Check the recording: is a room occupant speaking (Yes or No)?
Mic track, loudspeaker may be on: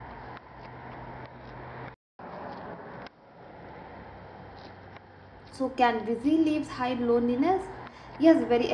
Yes